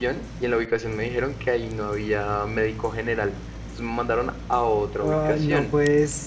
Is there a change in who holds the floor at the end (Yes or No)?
Yes